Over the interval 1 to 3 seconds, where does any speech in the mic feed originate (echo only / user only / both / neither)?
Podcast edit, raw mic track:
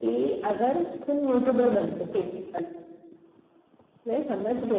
echo only